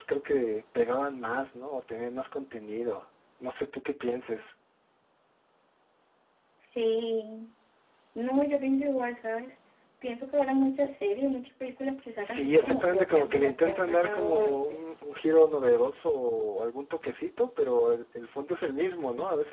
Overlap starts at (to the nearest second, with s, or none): 12 s